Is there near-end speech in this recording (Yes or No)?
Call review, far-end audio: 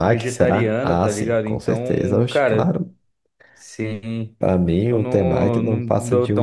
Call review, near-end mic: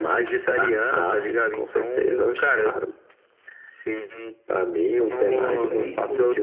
Yes